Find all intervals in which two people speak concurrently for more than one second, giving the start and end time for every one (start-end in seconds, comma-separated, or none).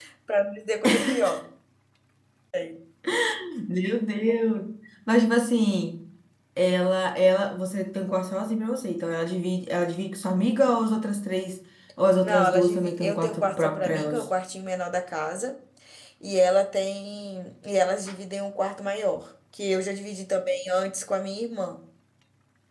12.2-14.2